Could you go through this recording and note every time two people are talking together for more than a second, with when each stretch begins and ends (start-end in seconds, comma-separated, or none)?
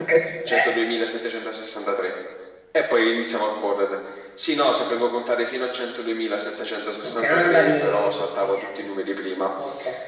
7.0-8.7